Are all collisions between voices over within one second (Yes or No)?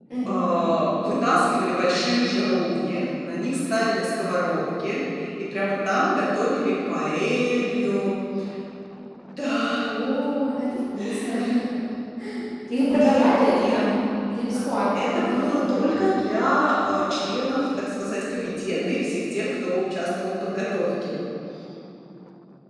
No